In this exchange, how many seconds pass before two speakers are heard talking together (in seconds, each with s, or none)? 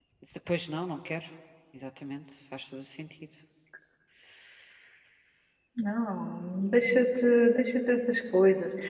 none